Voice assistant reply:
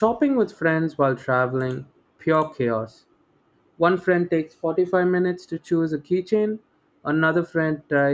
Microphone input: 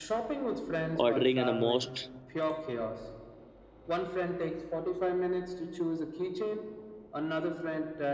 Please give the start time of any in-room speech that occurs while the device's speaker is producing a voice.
0.9 s

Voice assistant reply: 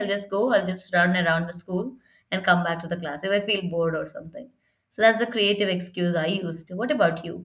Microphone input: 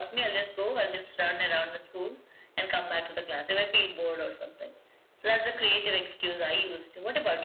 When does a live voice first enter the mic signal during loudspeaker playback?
none

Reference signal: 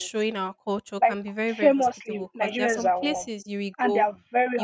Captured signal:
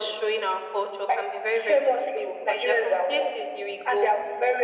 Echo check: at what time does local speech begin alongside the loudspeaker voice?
none

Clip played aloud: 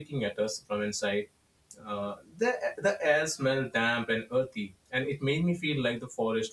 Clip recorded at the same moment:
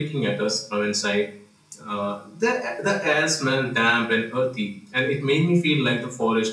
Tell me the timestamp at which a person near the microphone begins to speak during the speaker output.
none

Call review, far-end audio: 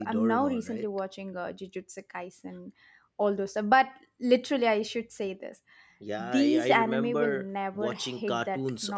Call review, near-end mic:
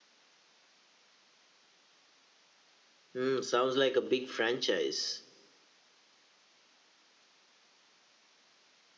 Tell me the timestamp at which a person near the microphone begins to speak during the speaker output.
3.1 s

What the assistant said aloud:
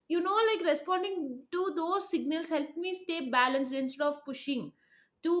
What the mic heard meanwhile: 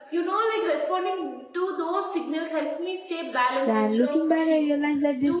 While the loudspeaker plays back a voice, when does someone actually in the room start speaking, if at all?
3.6 s

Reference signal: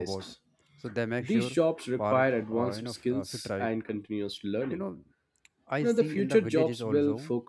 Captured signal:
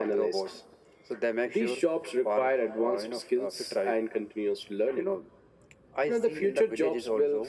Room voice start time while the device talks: none

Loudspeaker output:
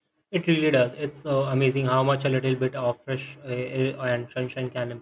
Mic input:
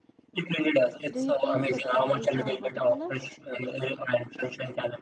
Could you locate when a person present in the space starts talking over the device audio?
1.1 s

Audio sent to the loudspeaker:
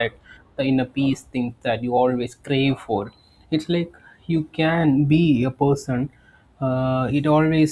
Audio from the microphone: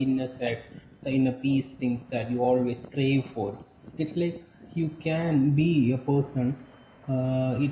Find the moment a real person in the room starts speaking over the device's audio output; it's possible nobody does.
none

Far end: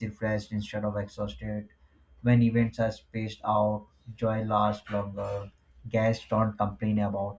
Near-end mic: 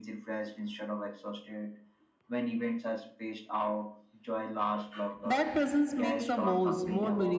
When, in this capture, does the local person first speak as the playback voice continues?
5.2 s

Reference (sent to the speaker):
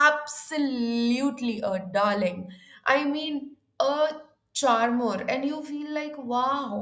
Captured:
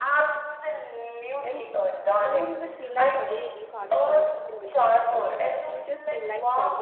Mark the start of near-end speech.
1.4 s

